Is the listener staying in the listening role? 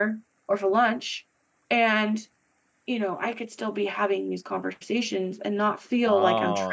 No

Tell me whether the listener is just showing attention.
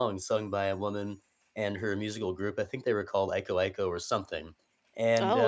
Yes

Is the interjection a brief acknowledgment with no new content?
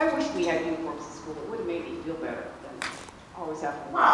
No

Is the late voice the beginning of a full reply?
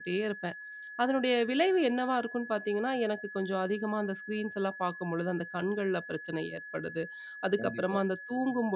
No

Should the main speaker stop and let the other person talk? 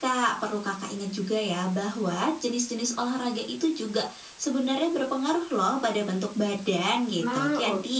No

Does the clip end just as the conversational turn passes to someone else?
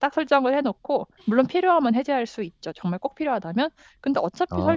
No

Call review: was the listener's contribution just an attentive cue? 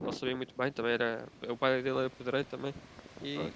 Yes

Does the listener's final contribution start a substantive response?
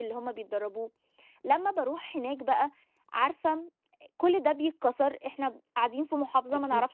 No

